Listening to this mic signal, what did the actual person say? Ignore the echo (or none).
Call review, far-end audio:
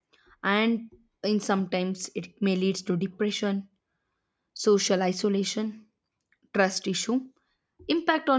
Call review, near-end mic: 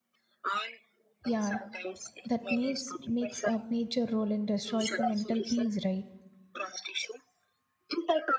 yeah that makes makes a major role and destroys the mental peace right